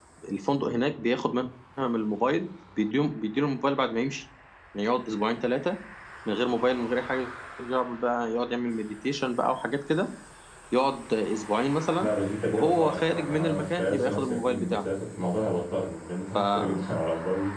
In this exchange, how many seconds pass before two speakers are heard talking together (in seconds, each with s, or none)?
12.5 s